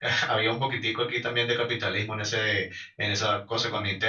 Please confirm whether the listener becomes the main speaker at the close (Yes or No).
No